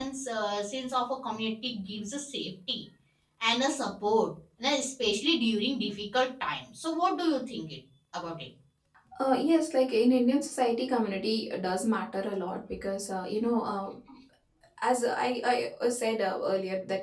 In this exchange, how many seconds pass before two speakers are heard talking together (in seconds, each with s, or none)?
none